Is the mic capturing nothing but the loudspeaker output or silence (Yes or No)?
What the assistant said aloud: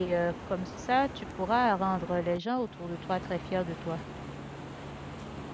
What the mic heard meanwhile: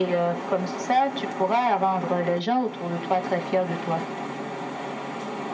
Yes